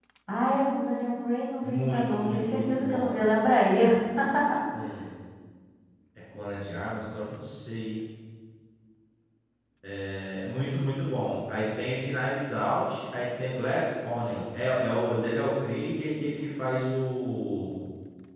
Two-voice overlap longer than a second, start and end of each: 1.6-3.2

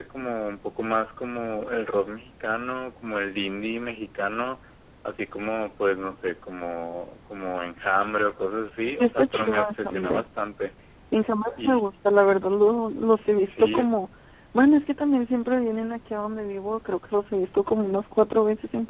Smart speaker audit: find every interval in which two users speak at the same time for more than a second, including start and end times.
8.9-10.3

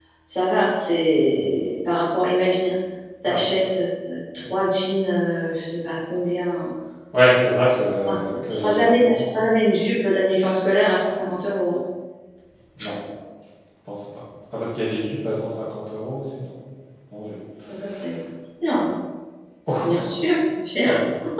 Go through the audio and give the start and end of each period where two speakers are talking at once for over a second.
8.1-9.4

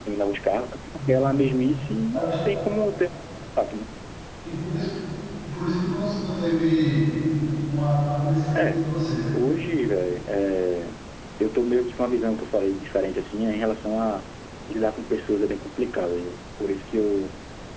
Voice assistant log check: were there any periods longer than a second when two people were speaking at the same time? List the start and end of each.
none

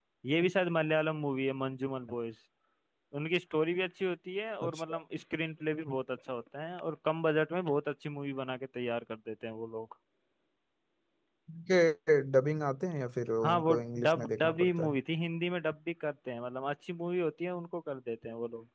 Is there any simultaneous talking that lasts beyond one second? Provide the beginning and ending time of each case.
13.4-15.0

